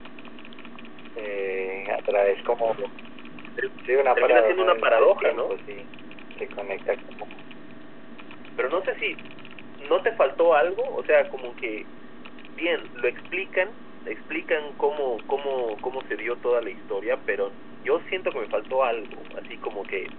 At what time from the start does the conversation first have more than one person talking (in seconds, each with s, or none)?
4.2 s